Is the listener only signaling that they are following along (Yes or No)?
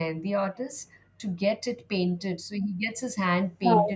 Yes